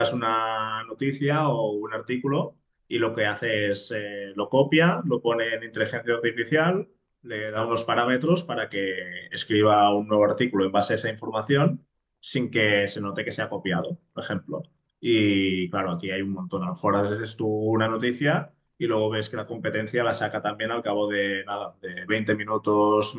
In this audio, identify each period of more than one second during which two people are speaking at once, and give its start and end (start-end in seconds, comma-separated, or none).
none